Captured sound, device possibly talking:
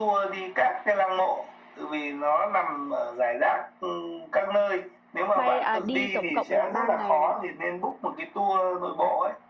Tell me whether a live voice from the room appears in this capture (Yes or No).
Yes